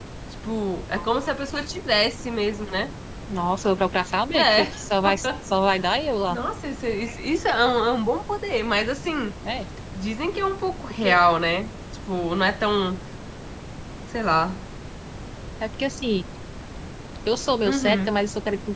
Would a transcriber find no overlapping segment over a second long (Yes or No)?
Yes